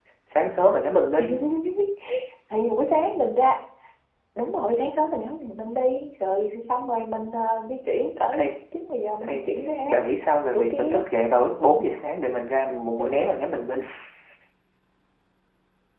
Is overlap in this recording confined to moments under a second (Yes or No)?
Yes